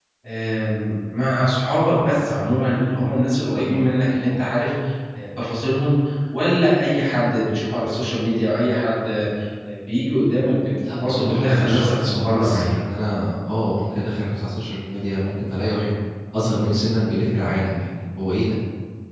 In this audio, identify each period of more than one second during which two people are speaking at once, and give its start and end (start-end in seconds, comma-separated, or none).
11.0-12.7